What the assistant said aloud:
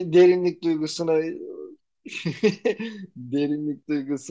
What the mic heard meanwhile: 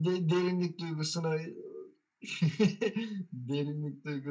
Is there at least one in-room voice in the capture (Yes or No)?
No